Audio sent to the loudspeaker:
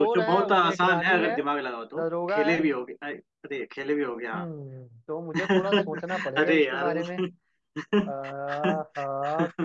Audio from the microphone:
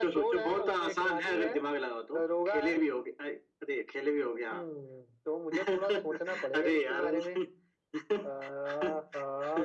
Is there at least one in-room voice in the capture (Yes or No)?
No